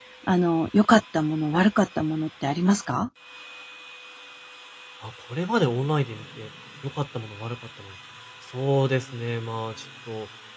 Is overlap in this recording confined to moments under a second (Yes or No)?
Yes